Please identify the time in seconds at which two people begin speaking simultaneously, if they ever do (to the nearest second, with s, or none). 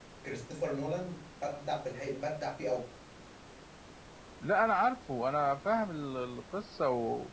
none